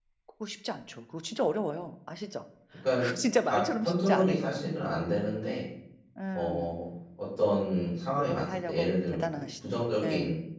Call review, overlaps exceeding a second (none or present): present